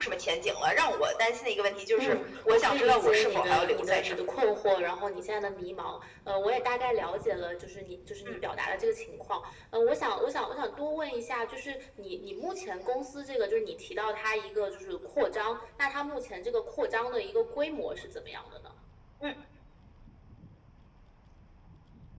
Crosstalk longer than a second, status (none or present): present